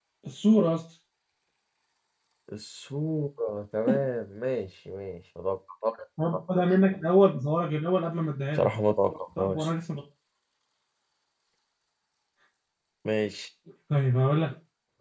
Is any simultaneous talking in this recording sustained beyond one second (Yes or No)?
No